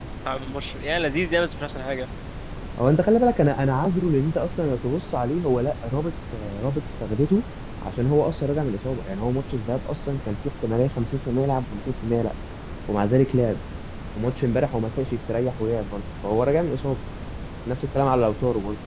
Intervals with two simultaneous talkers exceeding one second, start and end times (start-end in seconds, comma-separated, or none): none